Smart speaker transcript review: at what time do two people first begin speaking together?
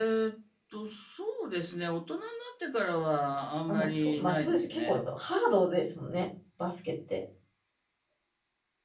3.7 s

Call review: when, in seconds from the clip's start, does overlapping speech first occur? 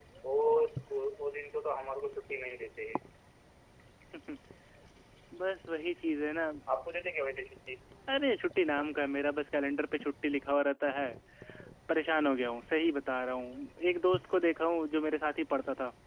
none

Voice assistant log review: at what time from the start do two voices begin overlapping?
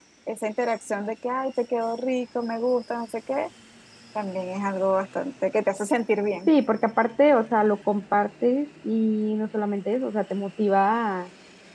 none

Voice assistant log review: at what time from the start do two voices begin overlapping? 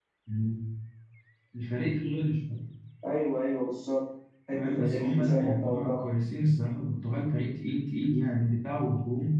4.5 s

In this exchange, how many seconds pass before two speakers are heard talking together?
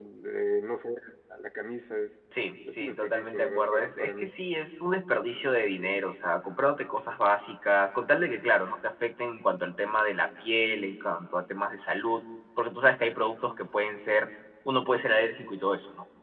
2.7 s

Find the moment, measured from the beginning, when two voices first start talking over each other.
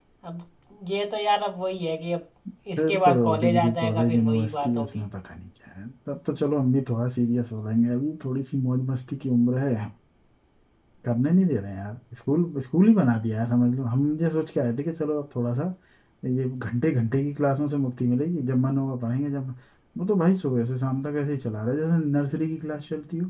2.8 s

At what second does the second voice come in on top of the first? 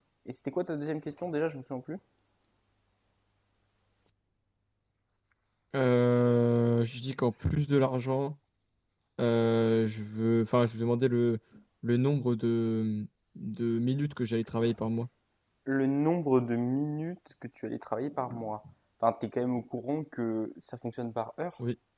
none

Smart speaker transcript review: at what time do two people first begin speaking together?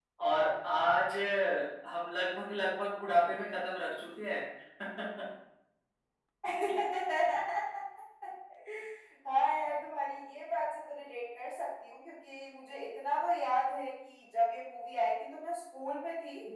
none

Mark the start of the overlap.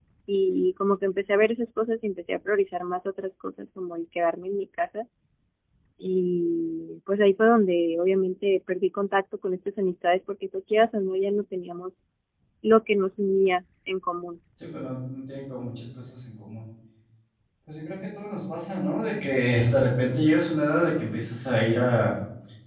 none

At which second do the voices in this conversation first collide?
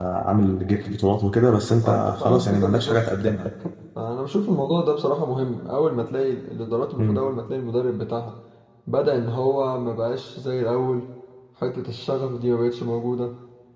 1.8 s

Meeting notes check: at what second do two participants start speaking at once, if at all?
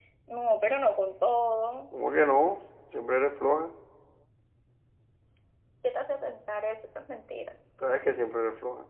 none

